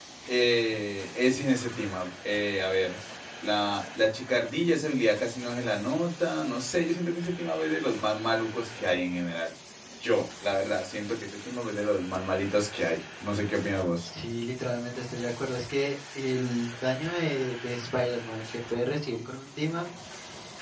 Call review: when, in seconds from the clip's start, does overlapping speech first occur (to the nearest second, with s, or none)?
none